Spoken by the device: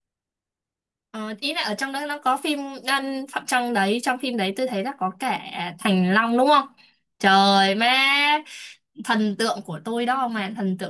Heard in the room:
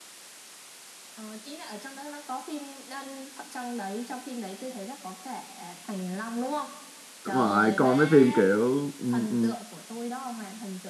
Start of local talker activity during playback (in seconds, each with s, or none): 7.2 s